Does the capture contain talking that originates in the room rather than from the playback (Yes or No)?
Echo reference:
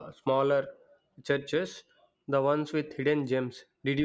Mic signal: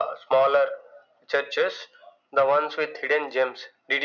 No